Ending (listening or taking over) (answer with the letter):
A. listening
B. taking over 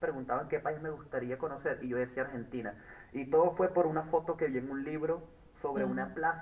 A